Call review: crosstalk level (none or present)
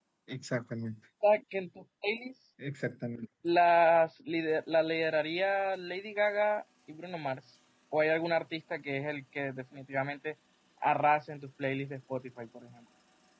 none